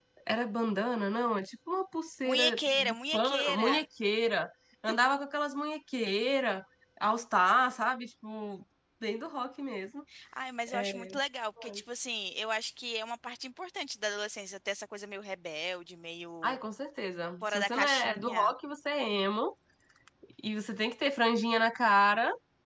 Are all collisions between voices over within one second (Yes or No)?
No